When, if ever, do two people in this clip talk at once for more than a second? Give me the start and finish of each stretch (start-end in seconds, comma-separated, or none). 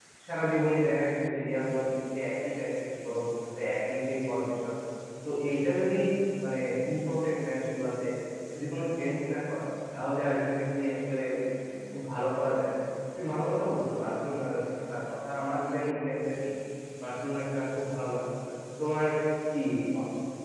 none